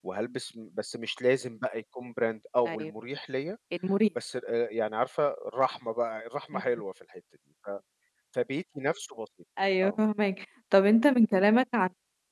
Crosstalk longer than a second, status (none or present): none